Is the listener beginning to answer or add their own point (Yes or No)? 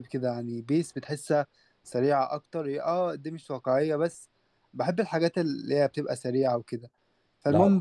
No